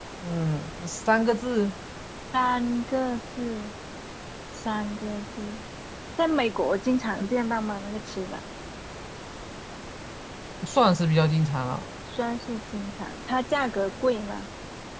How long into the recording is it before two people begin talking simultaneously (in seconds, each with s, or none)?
none